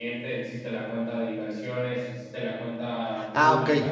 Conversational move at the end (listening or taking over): taking over